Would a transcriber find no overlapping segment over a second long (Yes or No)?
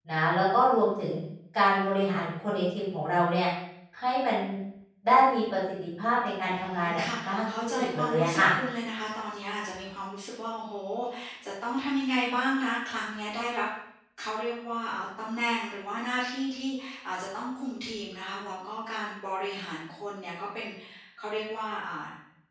No